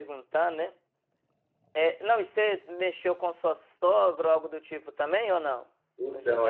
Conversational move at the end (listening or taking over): taking over